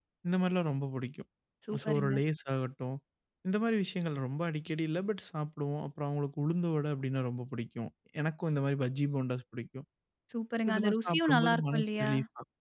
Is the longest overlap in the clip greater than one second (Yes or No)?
Yes